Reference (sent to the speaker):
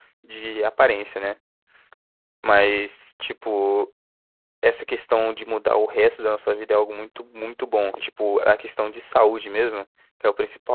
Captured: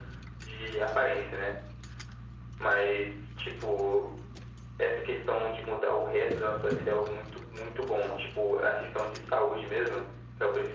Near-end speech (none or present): none